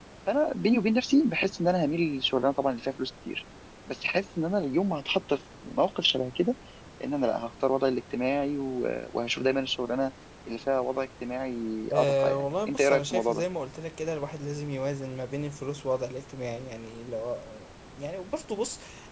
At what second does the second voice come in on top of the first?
11.9 s

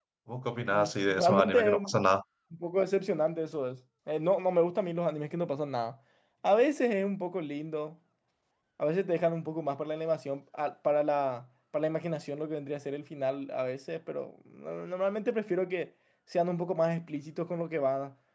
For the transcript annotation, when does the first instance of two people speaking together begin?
0.7 s

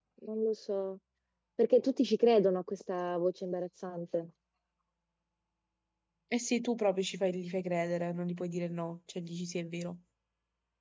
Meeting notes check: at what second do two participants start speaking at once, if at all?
none

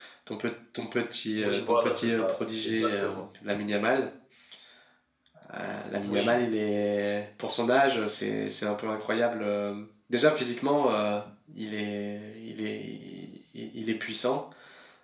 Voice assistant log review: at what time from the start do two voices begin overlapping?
1.4 s

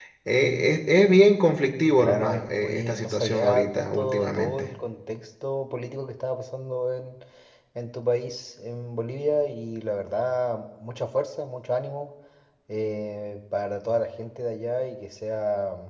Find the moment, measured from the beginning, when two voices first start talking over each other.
2.0 s

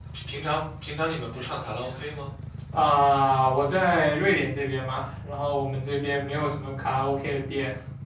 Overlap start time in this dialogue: none

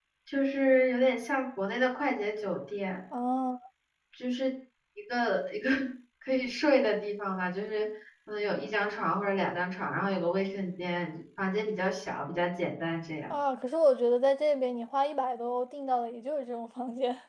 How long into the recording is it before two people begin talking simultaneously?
none

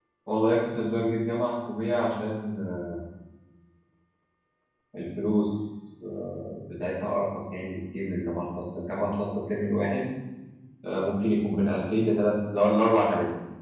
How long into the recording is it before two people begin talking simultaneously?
none

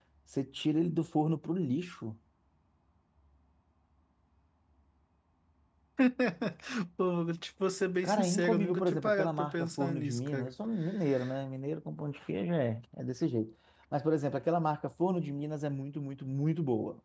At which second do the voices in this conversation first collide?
8.0 s

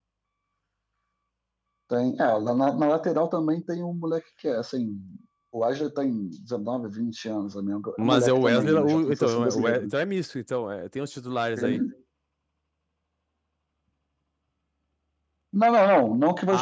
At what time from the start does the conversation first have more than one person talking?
8.0 s

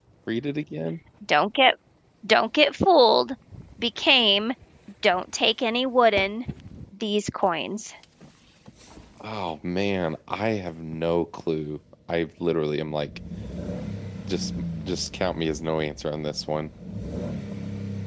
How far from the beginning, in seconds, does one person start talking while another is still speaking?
none

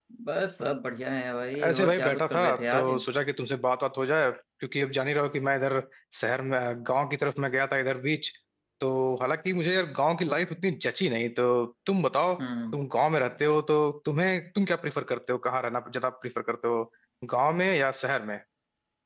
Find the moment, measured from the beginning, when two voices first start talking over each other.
1.5 s

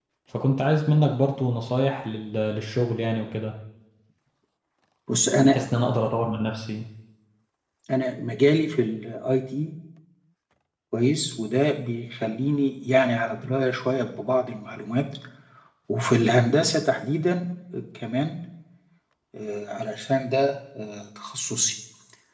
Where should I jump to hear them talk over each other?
none

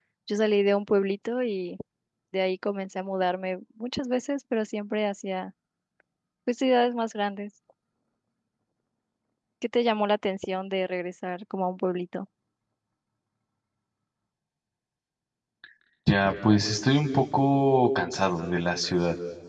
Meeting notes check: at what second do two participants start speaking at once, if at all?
none

